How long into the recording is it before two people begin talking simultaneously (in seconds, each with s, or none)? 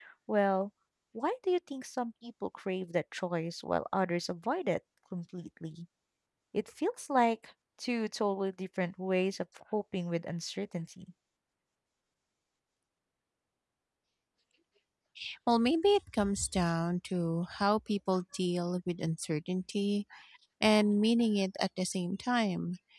none